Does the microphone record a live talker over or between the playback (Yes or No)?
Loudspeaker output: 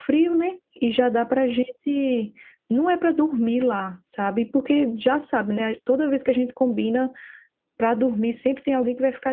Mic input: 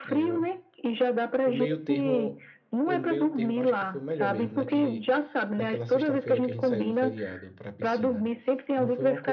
Yes